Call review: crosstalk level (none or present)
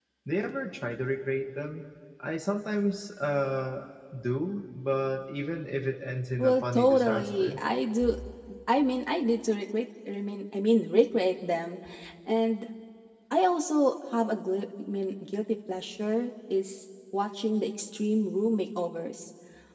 present